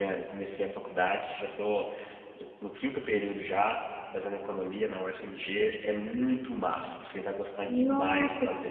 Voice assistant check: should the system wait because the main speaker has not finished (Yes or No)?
No